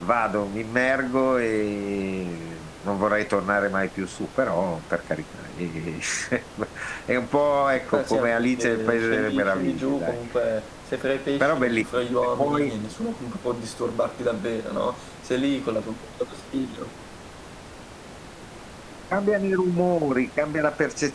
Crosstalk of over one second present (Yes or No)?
Yes